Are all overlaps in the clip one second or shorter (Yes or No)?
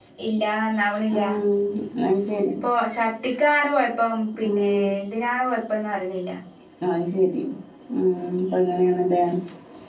Yes